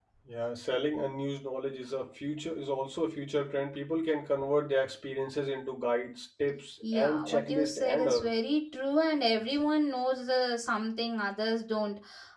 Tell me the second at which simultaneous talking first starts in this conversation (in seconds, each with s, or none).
6.8 s